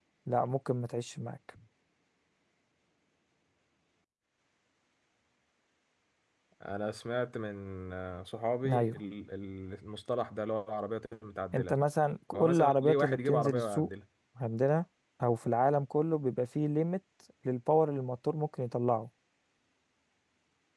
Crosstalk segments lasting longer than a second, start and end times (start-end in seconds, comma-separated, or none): 12.3-13.9